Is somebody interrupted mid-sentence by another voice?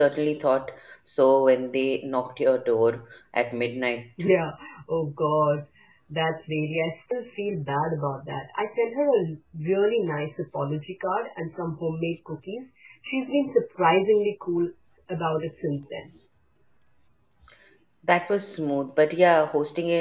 No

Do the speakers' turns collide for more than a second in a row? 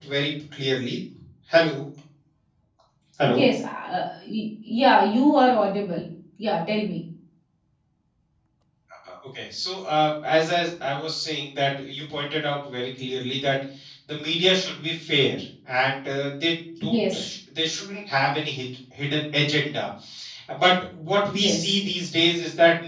No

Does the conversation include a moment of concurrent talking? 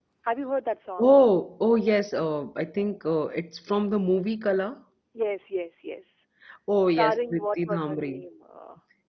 Yes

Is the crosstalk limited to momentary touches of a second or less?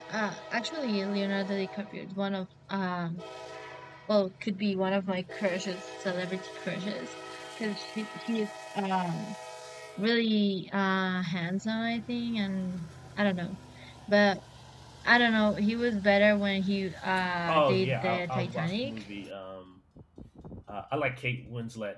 No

